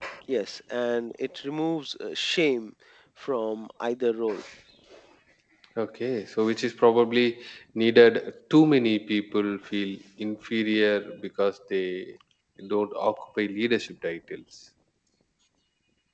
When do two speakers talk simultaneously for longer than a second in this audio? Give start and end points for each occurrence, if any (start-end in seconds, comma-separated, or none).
none